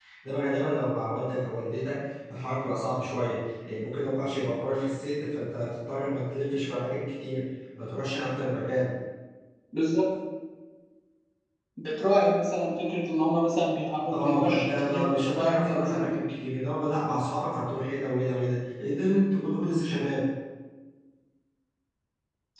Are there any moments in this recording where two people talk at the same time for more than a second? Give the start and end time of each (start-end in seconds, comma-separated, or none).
14.1-16.1